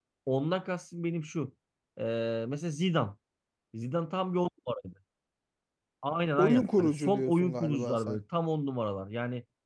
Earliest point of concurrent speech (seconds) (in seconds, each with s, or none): 6.4 s